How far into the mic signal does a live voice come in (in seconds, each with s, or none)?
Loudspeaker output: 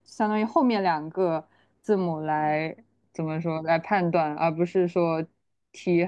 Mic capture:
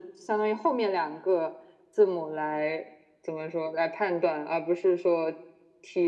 none